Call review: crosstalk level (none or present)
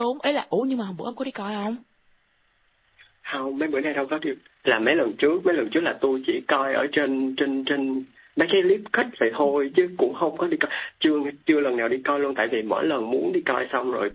none